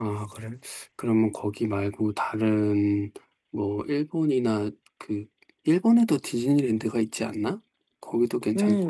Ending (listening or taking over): taking over